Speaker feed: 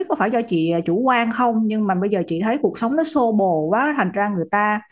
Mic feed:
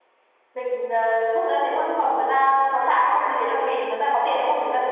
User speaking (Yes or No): Yes